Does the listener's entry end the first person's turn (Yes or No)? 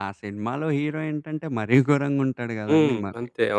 Yes